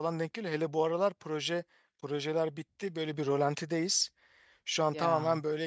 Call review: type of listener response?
listening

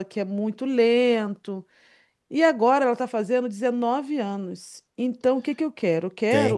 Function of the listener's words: taking over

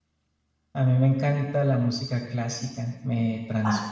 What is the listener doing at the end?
listening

